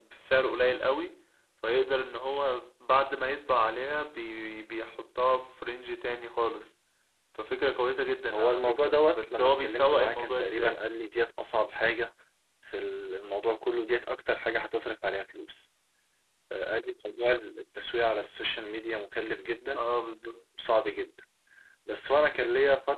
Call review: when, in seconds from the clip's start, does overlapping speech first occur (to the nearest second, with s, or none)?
8 s